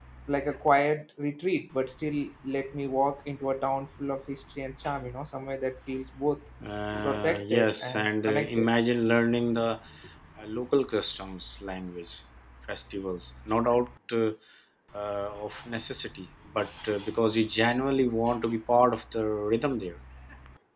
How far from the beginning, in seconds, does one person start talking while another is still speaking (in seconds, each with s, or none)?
7.0 s